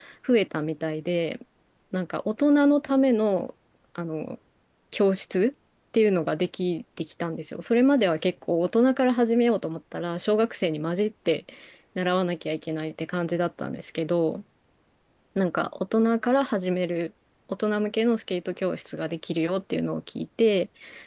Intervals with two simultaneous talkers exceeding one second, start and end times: none

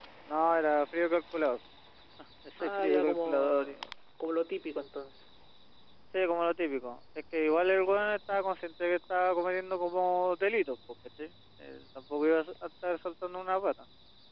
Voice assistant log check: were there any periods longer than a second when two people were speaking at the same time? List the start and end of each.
2.6-3.8

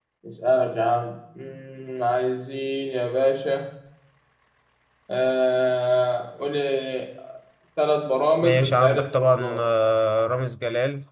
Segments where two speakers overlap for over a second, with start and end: 8.4-9.6

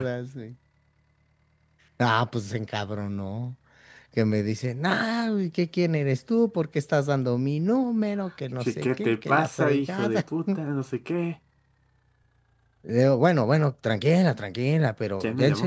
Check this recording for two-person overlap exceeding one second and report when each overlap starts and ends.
8.6-10.2

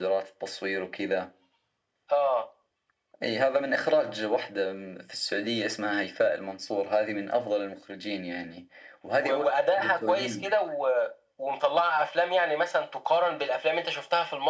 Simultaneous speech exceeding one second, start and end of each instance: 9.2-10.5

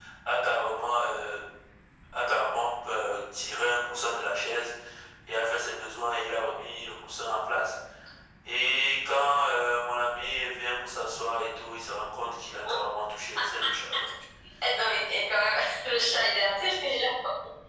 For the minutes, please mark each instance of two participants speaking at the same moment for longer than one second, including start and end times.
none

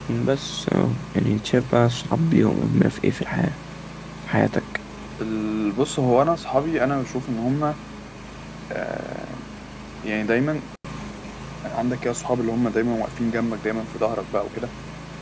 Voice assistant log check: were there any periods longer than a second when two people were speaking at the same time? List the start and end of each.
none

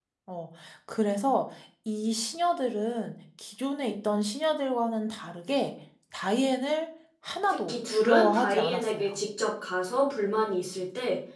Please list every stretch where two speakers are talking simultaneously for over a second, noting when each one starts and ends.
7.5-9.1

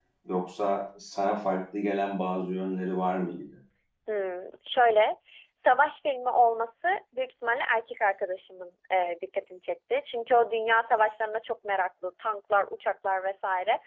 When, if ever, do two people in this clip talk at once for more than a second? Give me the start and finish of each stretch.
none

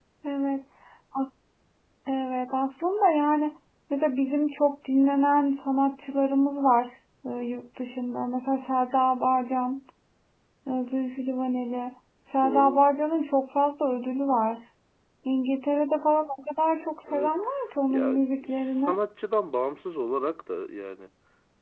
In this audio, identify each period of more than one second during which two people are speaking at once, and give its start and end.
none

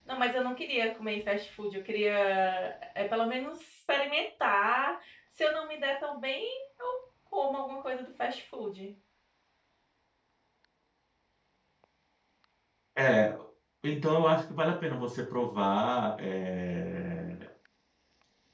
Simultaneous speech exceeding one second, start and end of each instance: none

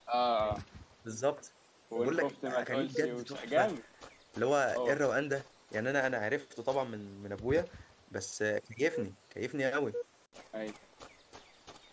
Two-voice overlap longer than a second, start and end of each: 2.0-3.7

